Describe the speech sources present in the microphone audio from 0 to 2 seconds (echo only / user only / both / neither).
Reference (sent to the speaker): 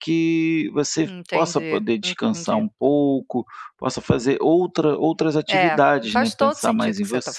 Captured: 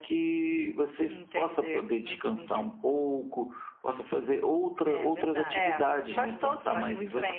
echo only